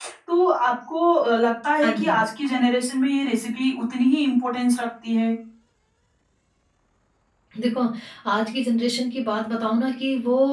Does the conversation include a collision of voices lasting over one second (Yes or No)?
No